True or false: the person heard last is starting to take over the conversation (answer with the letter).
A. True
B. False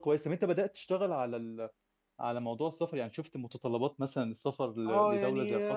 A